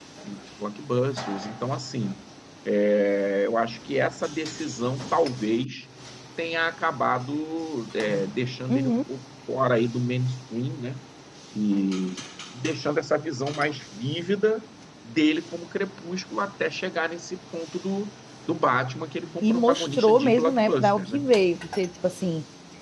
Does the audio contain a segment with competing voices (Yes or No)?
Yes